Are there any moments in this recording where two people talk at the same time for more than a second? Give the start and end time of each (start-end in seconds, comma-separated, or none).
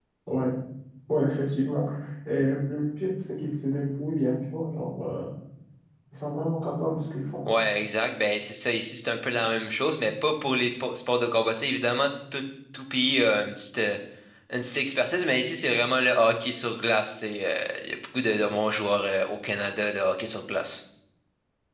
none